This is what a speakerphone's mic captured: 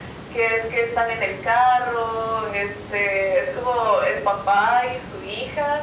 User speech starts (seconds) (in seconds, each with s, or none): none